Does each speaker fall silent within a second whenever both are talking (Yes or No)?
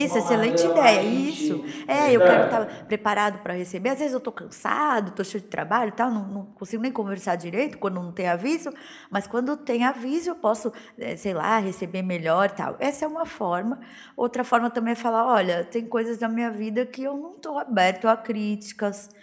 No